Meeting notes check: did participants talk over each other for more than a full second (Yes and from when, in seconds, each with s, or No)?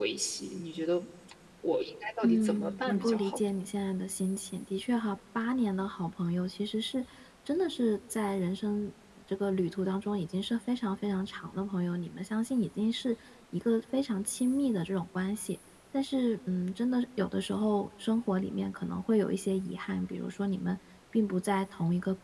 Yes, from 2.2 s